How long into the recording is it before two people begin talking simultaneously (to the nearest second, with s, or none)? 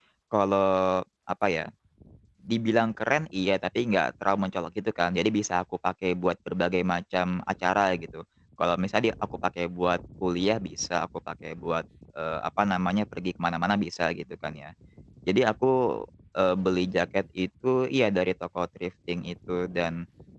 none